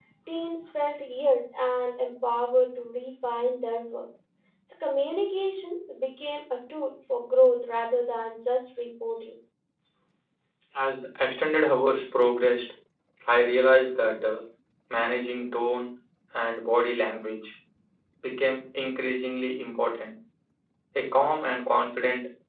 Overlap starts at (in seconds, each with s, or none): none